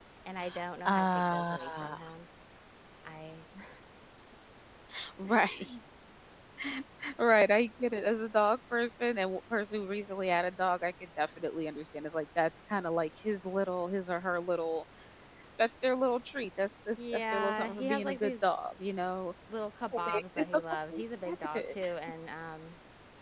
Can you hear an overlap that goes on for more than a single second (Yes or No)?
Yes